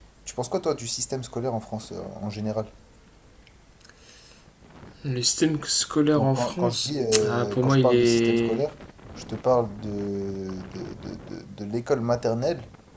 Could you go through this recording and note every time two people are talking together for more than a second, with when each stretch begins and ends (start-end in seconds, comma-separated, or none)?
6.2-8.7